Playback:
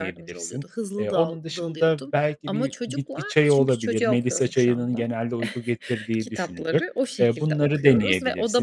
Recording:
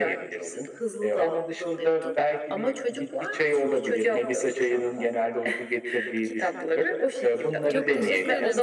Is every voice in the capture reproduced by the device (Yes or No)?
No